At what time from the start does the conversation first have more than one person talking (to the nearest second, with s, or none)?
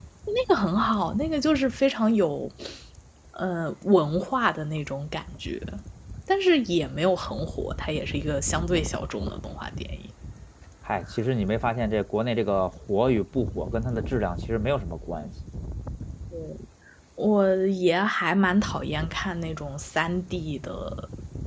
none